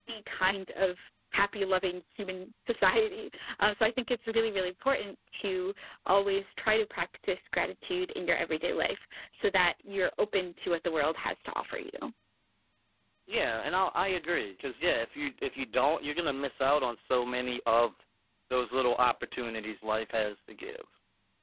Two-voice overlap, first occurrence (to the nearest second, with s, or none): none